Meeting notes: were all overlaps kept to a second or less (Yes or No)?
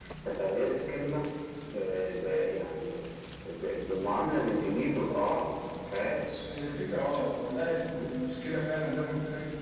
Yes